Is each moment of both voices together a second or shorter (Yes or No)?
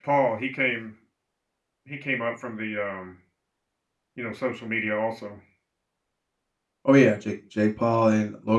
Yes